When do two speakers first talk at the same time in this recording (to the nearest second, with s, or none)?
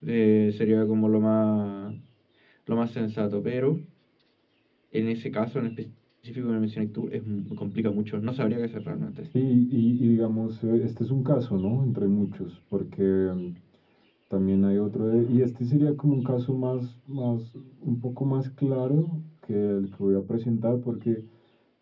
none